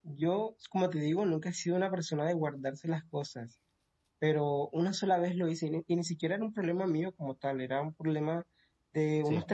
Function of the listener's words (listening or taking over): listening